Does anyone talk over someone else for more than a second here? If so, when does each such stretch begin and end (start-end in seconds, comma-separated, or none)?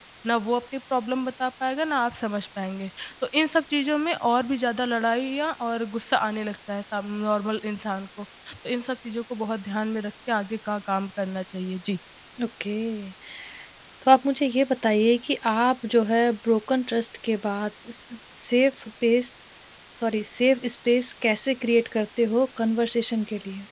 none